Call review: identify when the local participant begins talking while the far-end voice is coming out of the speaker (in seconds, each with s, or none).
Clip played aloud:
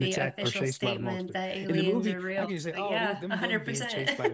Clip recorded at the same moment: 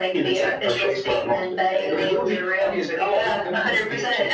none